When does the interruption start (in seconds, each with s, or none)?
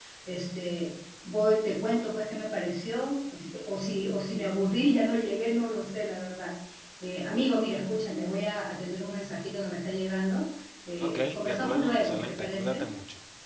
11.0 s